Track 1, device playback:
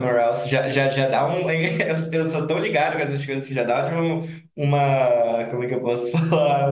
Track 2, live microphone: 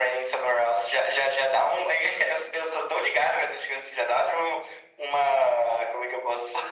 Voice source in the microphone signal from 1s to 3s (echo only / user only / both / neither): echo only